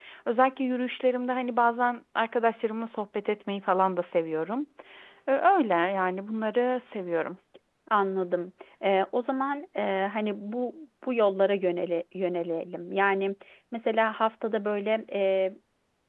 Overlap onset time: none

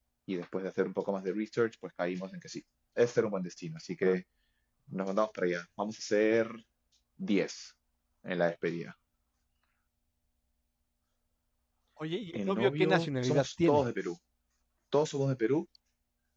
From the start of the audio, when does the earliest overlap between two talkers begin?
12.3 s

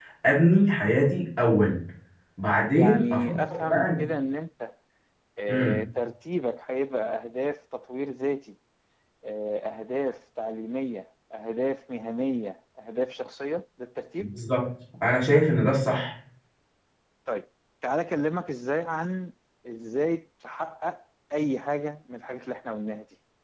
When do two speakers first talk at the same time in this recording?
2.7 s

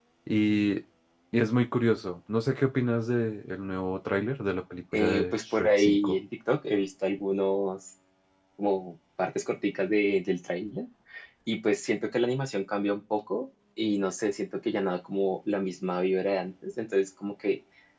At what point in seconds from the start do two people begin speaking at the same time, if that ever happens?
4.9 s

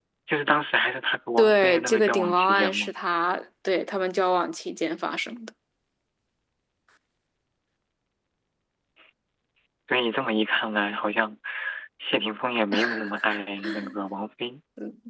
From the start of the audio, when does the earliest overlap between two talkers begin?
1.4 s

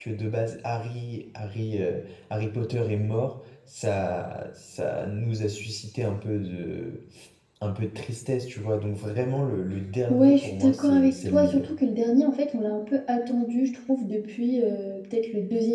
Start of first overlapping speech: 10.1 s

